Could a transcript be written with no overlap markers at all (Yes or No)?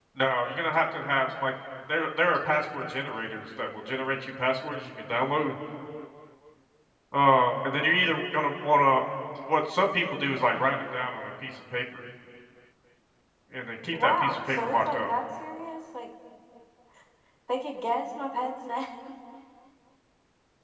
No